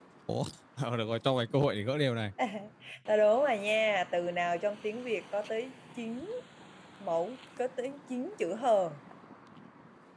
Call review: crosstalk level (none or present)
none